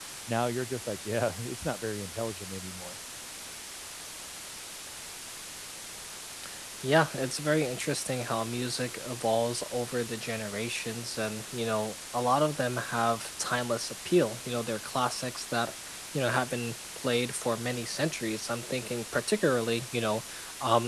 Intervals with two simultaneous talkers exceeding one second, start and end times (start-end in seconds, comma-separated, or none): none